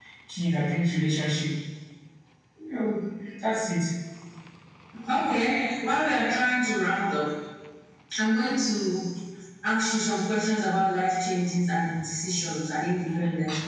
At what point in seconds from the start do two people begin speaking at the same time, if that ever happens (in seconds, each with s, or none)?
none